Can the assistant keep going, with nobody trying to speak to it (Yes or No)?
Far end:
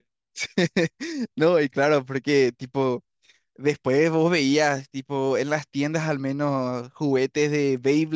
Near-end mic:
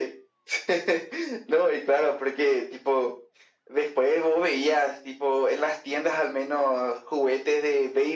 Yes